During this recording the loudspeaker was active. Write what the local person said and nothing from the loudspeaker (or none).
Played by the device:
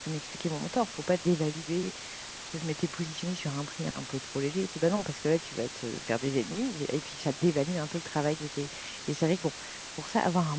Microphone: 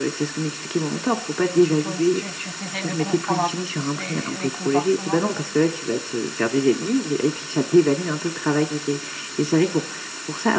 et tu poses, tu tu t'essayes de comprendre un peu plus les les comportements.